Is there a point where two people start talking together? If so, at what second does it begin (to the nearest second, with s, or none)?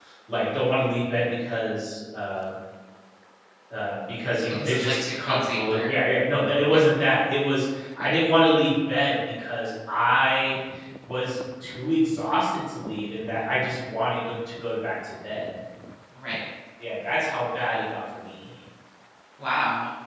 4 s